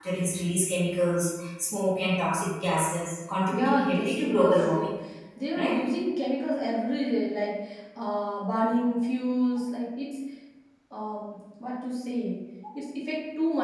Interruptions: present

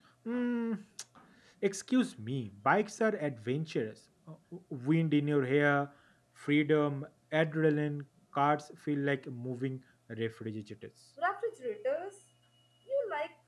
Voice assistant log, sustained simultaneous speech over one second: none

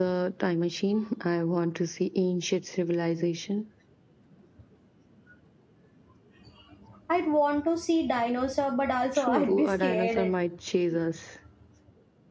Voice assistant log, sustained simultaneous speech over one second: present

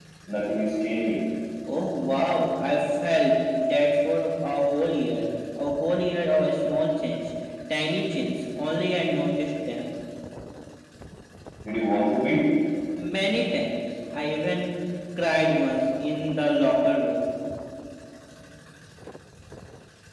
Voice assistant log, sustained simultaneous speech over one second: none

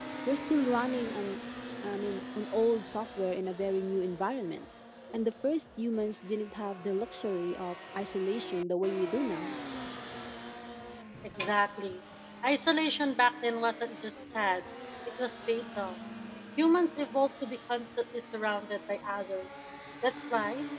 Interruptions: none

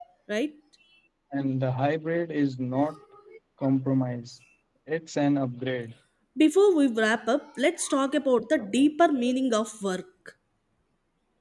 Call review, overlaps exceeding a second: none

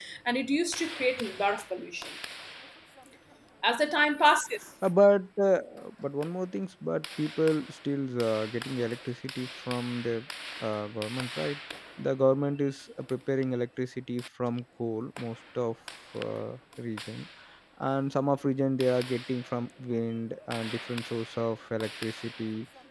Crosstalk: none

